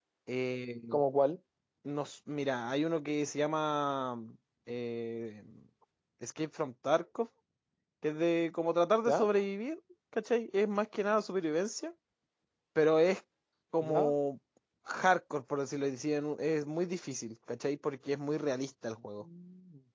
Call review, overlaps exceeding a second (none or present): none